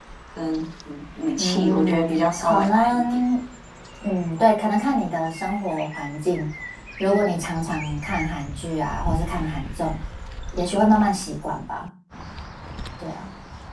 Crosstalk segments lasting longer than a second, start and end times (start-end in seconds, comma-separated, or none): 1.4-3.2